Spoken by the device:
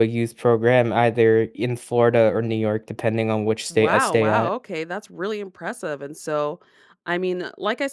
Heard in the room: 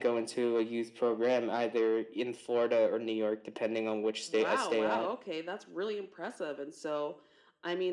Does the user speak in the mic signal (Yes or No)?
No